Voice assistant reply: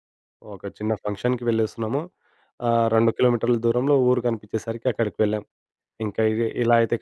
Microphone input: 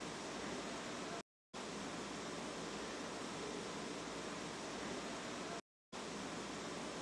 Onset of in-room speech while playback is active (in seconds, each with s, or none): none